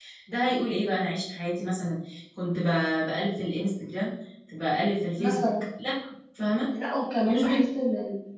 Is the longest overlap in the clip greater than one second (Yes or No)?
No